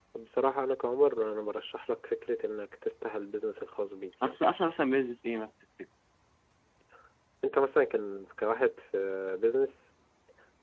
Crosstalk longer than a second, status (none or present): none